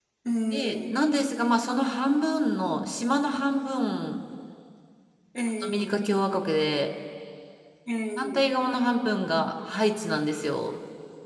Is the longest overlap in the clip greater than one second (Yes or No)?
No